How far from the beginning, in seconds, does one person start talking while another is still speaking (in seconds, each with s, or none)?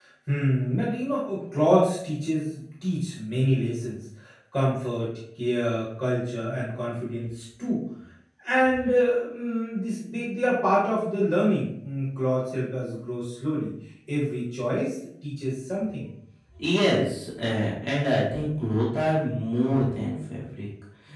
none